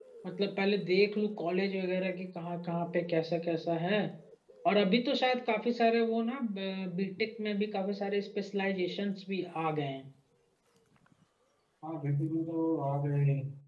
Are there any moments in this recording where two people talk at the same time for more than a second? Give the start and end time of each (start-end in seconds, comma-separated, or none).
none